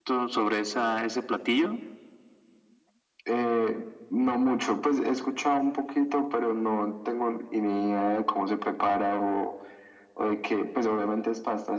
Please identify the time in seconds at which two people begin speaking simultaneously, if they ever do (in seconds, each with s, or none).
none